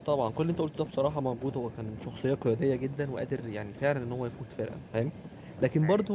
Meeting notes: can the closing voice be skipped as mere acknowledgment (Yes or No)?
Yes